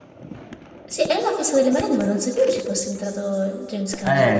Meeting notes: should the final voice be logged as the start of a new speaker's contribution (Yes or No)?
Yes